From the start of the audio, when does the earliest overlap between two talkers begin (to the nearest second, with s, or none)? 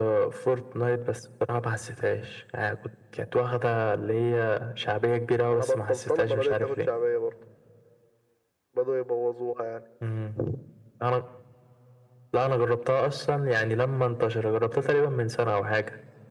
5 s